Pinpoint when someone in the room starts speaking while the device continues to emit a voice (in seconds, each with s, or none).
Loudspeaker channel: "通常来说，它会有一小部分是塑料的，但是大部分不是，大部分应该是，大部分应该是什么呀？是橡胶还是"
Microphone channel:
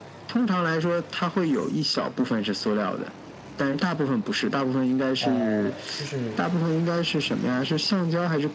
5.2 s